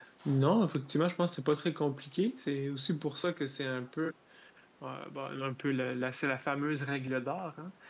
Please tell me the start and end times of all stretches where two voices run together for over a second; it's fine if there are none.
none

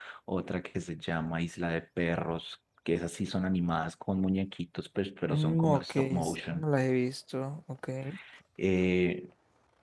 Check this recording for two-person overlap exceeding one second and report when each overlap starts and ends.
5.2-6.6

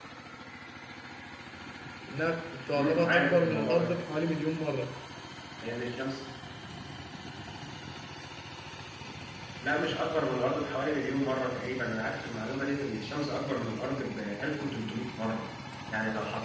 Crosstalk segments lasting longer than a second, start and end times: 2.7-4.0

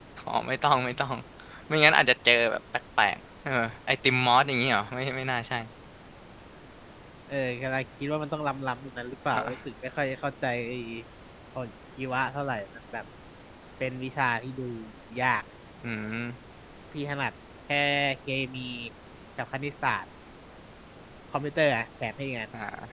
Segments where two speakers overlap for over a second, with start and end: none

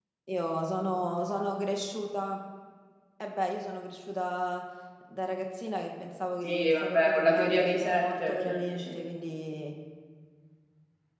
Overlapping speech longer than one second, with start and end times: 6.4-9.0

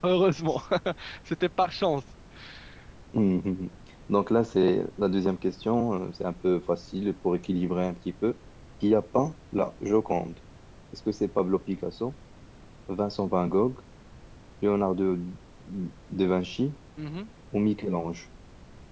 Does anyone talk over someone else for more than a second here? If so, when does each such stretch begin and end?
none

